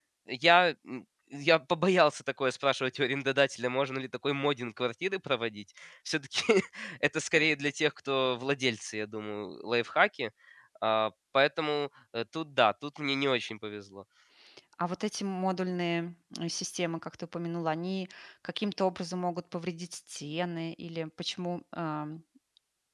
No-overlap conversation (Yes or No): Yes